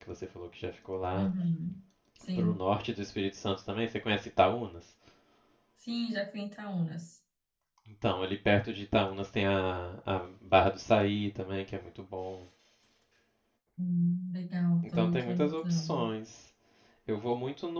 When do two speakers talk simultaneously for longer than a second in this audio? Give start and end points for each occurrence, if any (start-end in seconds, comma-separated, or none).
14.8-16.1